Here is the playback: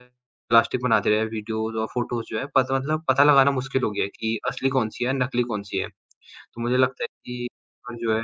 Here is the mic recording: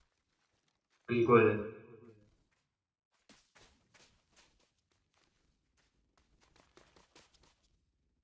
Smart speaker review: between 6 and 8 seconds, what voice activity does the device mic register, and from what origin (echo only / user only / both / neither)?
neither